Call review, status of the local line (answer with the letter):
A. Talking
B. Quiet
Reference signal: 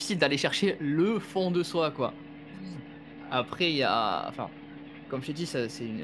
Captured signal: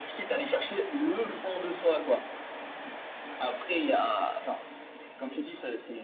B